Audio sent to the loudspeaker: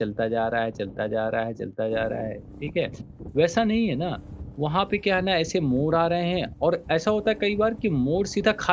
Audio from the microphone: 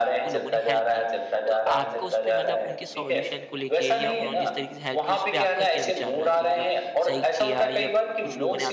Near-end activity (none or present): present